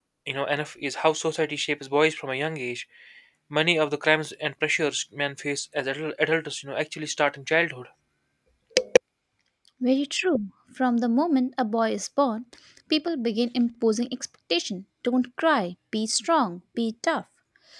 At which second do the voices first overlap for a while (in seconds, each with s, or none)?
none